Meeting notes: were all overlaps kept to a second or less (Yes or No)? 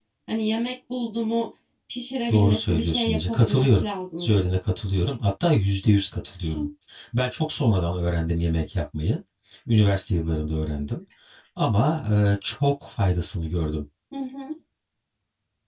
No